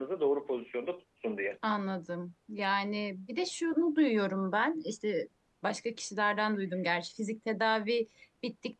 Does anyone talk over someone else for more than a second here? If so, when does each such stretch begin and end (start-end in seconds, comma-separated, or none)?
none